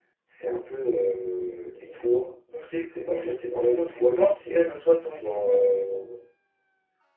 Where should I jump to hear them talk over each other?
2.9 s

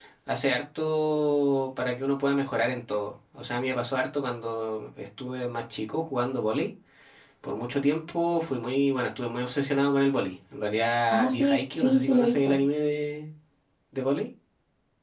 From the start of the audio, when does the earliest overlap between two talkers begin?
11.1 s

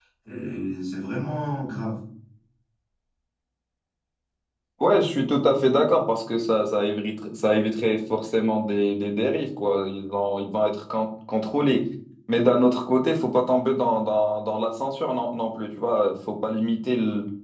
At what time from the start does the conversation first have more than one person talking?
none

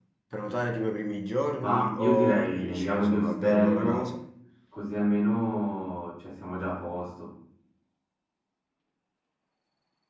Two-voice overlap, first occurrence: 1.6 s

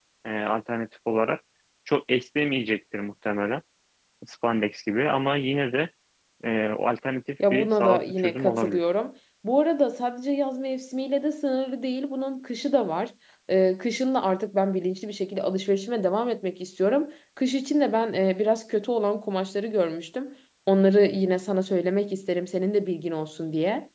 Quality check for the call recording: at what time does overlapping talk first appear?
7.4 s

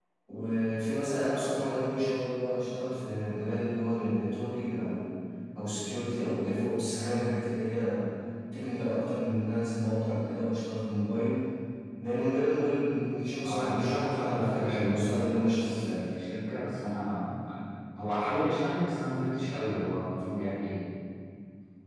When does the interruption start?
13.4 s

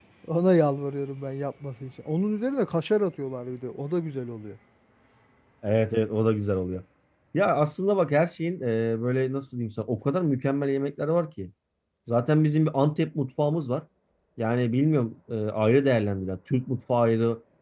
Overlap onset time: none

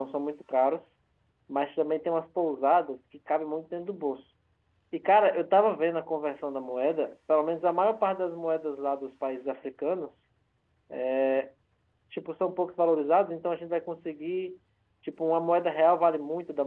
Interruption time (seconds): none

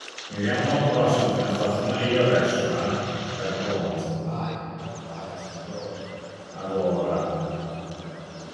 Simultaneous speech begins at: none

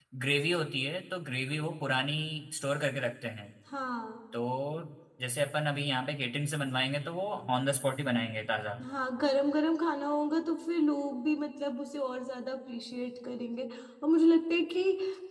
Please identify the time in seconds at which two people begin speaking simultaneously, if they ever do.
none

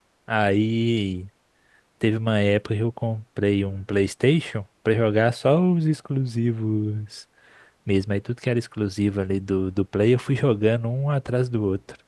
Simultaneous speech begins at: none

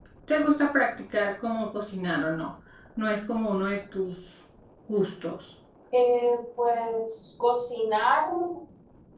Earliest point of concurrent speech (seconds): none

